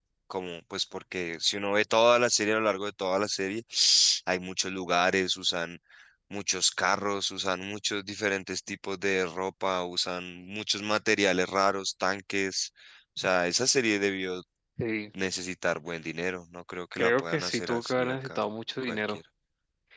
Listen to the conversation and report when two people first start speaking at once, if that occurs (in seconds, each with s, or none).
17.0 s